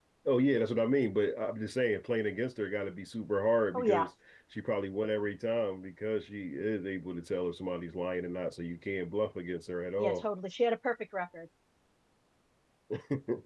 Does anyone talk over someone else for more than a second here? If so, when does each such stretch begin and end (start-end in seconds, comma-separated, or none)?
none